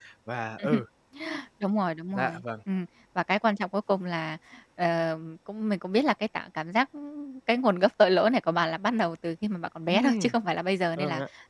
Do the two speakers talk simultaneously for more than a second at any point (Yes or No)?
No